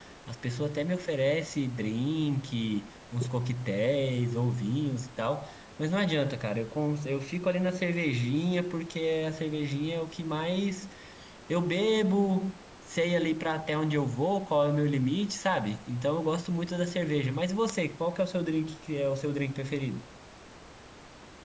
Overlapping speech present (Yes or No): No